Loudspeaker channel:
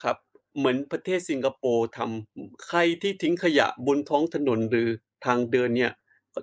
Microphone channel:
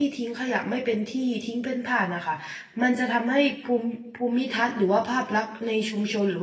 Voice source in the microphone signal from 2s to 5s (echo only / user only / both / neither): user only